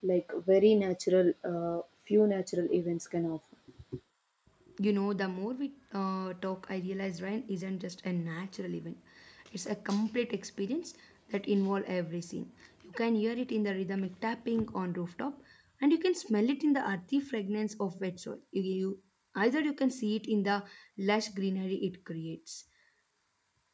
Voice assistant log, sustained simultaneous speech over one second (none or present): none